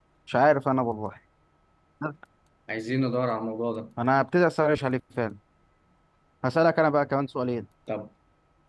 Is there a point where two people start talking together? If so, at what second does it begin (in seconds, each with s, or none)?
none